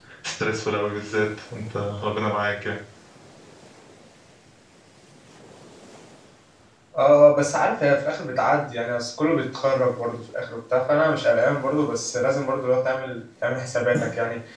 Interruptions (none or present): none